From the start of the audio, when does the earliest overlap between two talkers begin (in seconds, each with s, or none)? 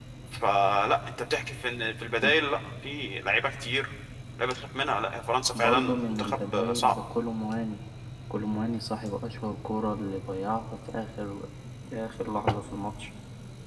5.5 s